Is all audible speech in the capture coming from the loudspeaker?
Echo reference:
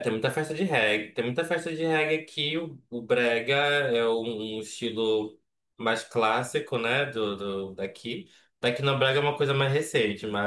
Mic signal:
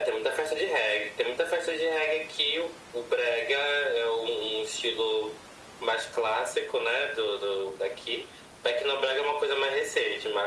Yes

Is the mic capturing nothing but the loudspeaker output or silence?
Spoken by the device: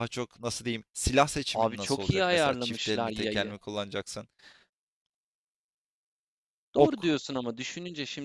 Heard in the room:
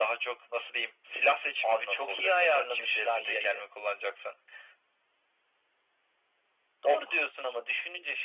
Yes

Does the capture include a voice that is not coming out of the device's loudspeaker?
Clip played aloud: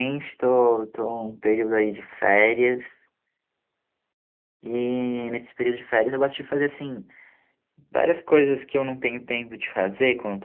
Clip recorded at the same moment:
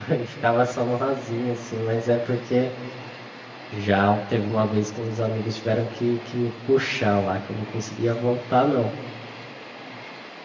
Yes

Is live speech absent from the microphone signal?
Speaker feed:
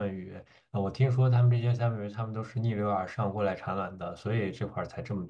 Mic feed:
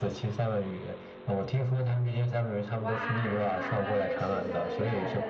No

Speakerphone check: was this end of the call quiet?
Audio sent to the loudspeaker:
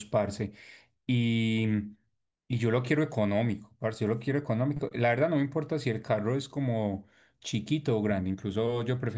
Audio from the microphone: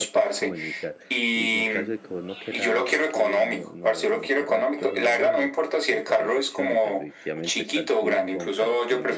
No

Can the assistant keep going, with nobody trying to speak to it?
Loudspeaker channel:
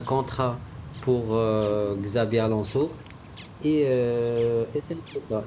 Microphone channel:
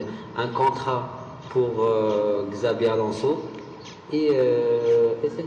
Yes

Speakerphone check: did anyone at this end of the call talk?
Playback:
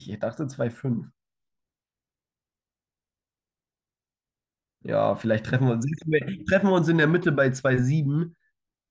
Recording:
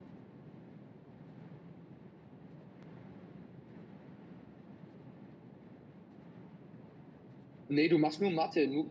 Yes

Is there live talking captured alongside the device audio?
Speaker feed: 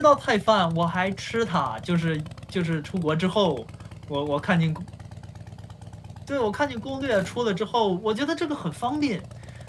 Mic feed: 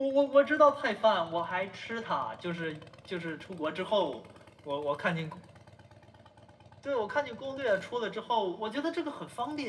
No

